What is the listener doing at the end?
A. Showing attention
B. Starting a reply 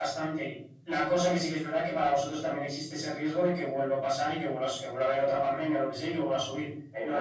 B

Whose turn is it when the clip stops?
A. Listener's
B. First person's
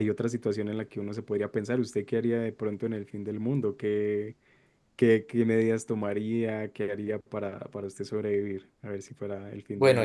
A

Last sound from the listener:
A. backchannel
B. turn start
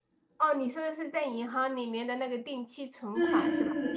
B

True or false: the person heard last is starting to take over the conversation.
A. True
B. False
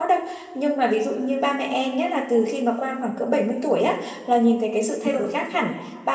B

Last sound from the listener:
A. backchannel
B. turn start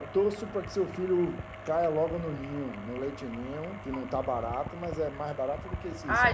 B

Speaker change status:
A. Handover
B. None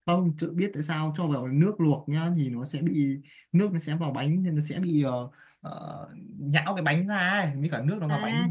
A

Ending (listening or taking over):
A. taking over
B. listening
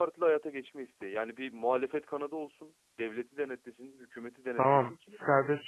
A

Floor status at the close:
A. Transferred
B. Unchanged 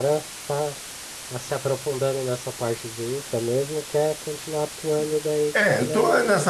A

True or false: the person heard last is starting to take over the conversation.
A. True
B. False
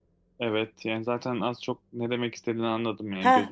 A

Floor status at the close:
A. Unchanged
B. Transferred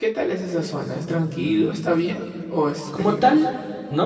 B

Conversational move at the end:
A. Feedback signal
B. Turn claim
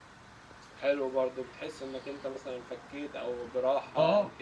B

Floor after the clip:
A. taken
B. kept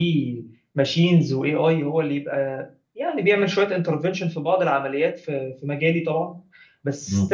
B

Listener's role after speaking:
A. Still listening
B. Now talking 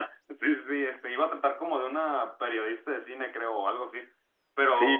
B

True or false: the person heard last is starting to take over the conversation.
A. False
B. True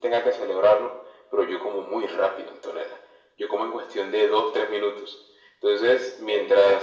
A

